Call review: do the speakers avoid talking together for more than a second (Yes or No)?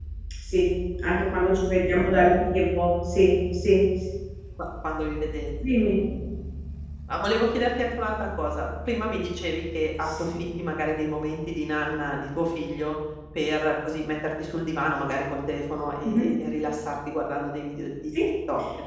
Yes